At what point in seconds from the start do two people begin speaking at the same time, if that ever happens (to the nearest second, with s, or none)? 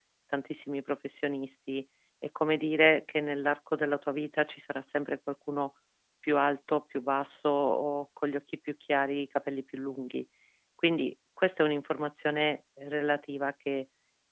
none